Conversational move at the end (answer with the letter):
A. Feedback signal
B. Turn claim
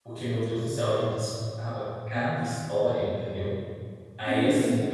A